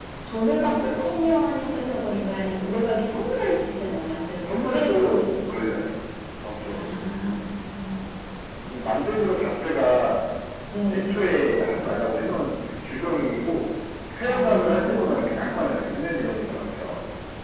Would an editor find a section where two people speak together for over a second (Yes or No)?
Yes